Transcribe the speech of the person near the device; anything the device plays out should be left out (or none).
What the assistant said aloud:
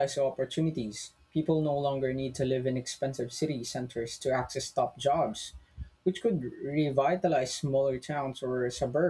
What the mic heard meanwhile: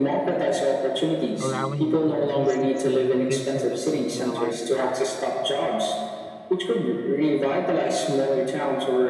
allowing employees to choose location that suit their lifestyle.